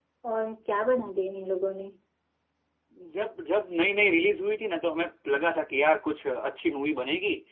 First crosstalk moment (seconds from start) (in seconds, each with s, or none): none